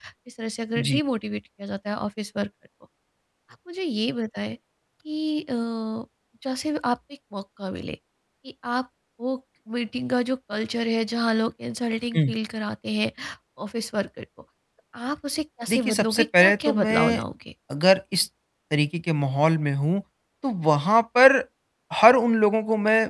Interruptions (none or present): present